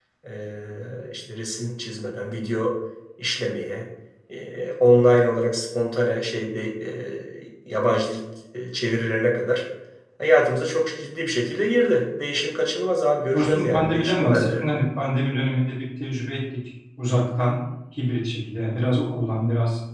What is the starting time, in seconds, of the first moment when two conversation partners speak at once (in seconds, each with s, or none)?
13.3 s